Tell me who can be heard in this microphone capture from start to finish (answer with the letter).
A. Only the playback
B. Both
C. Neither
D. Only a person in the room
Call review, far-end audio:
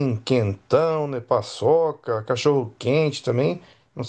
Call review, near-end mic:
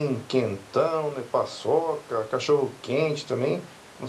A